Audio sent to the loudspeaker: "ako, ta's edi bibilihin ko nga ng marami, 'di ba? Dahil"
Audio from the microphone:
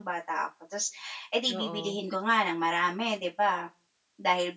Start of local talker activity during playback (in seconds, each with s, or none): 1.4 s